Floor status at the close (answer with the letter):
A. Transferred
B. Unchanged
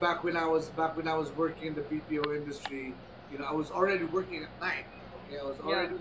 B